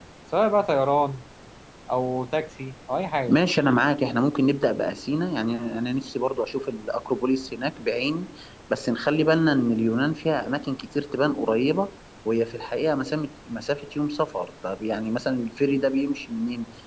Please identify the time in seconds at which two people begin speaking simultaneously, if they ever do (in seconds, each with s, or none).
none